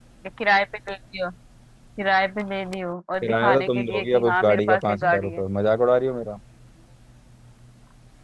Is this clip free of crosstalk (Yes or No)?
No